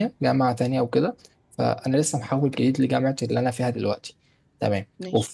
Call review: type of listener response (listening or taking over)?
listening